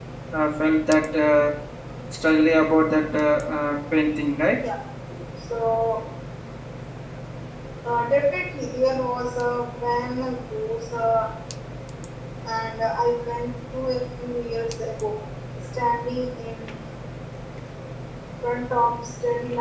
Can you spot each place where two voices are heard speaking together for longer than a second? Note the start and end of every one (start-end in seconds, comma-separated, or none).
none